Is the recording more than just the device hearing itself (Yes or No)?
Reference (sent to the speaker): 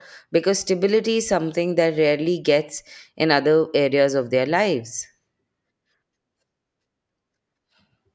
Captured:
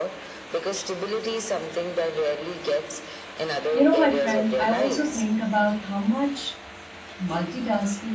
Yes